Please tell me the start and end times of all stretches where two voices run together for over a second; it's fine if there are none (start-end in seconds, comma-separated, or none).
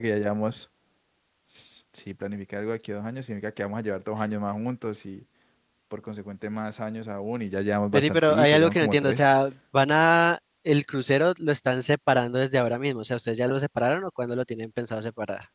7.9-9.3